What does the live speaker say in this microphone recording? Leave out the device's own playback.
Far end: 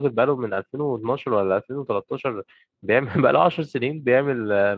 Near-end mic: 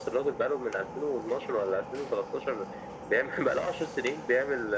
none

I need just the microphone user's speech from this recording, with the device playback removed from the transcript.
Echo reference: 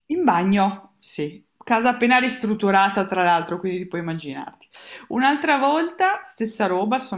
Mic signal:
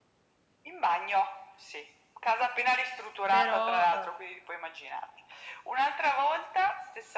però

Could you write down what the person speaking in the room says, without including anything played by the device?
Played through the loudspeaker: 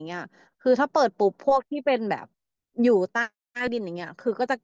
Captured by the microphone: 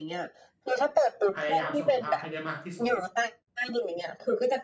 พยายามเสมอภาพให้ได้มากที่สุด

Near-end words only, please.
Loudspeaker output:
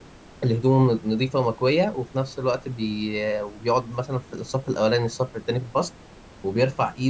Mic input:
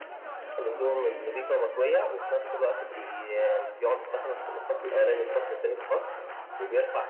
none

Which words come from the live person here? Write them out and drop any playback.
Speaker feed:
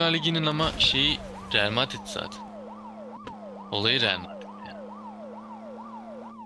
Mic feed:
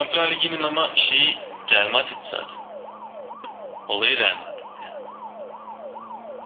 none

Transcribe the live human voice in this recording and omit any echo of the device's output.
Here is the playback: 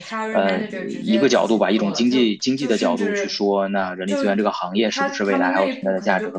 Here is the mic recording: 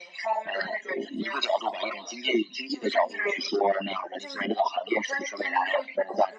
none

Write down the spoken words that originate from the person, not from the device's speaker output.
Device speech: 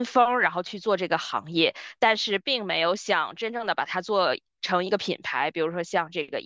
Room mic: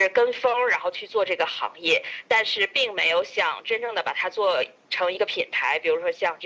none

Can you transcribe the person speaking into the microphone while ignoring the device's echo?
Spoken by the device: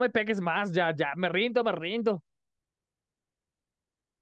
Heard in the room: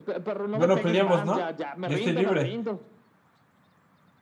Bueno, peleamos, ¿no? Yo estoy libre.

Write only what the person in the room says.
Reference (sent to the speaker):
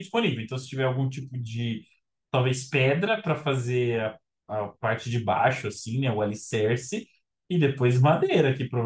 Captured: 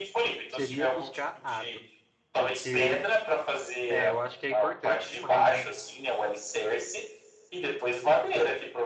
Seria buscar água. Porque é, eu acho que é importante demais, né?

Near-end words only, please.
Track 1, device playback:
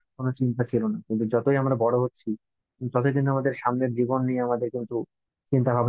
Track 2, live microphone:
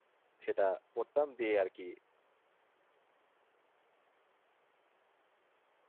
সেটা পড়তাম দিয়ে আর কি

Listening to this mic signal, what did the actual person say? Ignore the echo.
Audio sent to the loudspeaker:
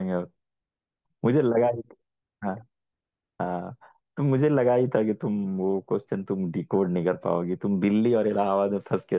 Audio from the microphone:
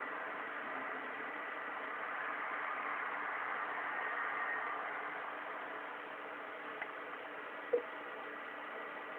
none

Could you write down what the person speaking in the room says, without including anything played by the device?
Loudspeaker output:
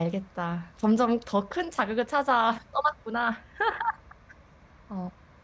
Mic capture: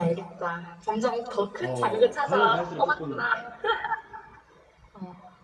어, 가면 갈수록 조금

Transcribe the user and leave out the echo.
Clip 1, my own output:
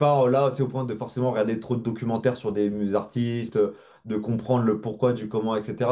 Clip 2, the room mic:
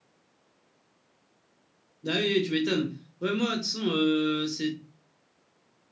Ah oui, oui, tu m'étonnes. Ouais, moi, de toute façon, euh, c'est...

